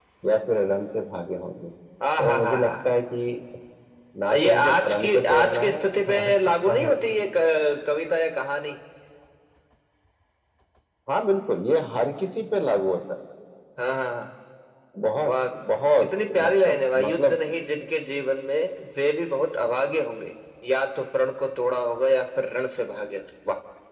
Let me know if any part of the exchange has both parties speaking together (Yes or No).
Yes